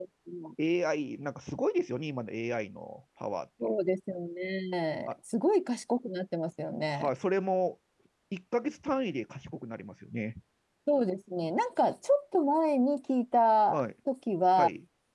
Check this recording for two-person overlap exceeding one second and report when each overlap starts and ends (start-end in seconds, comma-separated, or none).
none